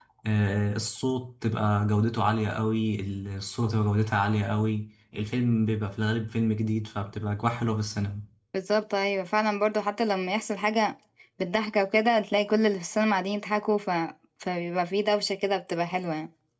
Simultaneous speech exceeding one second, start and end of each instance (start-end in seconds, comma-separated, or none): none